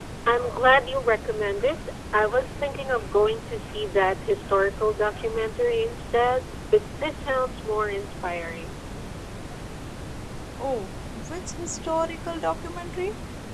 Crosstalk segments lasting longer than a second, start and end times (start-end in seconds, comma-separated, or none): none